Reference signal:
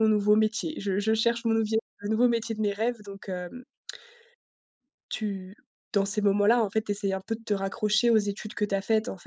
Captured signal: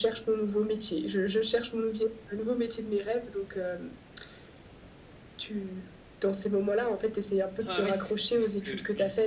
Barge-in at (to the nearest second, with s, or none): 8 s